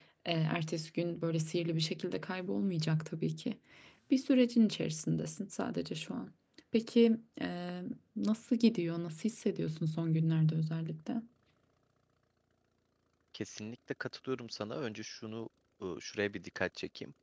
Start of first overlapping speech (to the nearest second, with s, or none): none